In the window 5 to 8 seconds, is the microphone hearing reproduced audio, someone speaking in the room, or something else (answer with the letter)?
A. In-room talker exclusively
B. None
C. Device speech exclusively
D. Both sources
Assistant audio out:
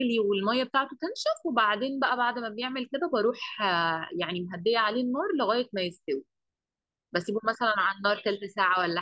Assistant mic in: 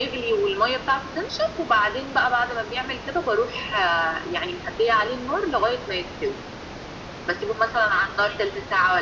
C